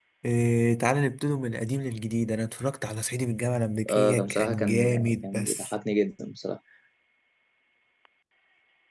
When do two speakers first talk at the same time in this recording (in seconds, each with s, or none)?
3.9 s